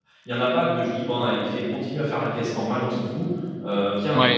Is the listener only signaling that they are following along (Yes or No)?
No